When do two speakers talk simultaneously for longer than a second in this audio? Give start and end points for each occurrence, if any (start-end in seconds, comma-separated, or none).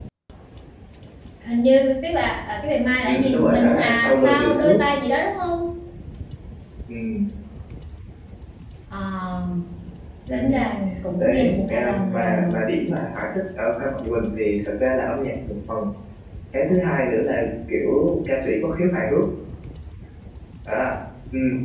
3.0-4.8, 11.2-12.6